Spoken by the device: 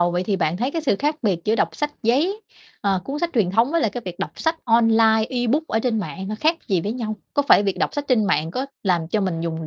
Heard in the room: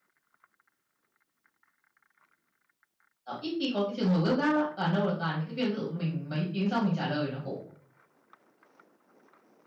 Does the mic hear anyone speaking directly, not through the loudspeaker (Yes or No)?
Yes